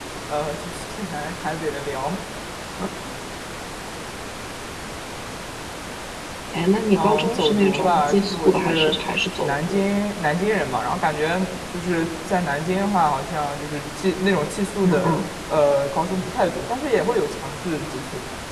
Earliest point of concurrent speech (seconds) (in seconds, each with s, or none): 7.0 s